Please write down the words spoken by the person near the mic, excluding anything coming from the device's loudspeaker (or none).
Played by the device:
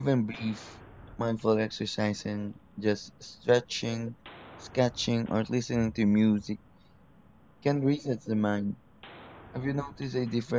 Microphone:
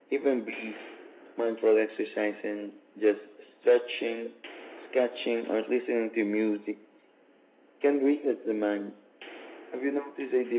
none